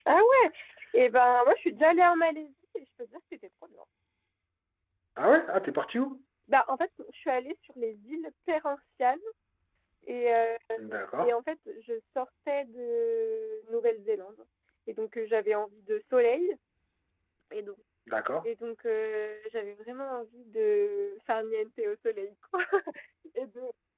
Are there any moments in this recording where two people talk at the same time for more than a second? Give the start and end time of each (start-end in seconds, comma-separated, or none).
none